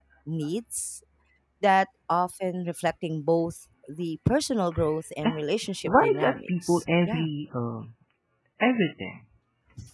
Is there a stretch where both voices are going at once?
Yes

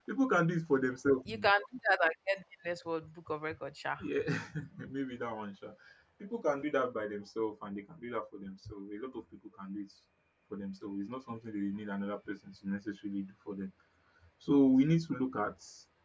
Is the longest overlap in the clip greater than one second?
No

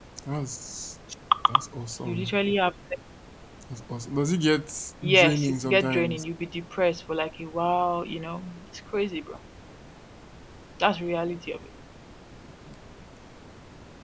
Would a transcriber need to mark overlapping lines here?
Yes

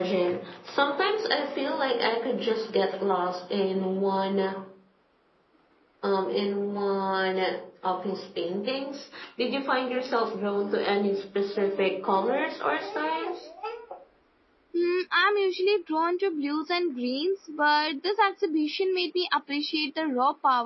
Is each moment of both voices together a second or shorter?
Yes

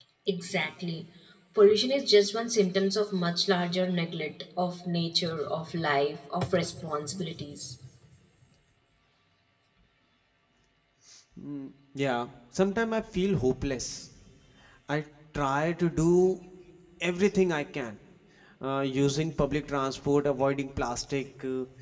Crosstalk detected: No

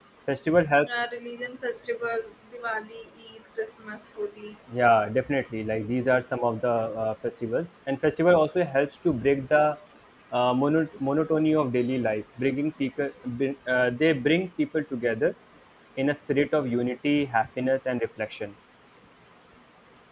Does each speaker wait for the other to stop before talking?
Yes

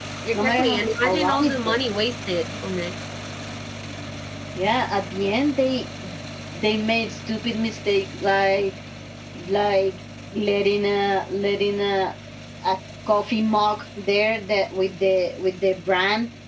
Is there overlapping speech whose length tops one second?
Yes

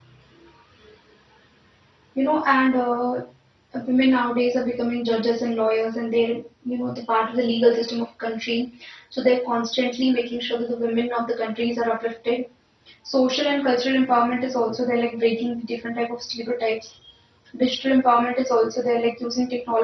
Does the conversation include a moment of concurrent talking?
No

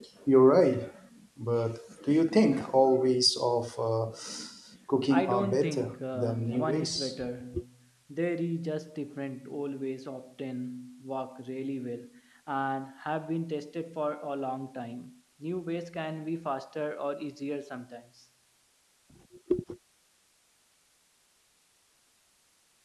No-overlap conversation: No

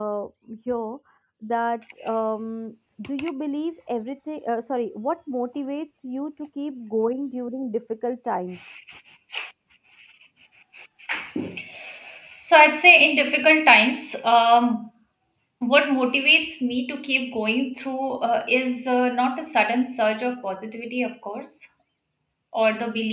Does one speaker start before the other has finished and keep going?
No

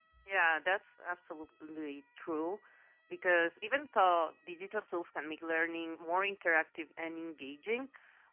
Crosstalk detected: No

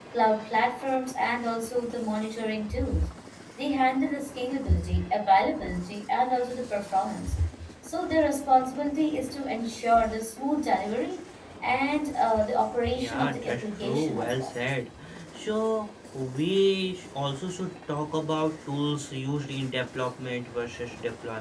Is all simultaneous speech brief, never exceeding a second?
No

